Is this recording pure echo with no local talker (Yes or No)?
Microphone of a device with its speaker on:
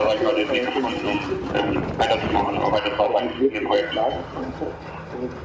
Yes